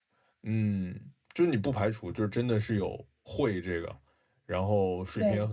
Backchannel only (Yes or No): Yes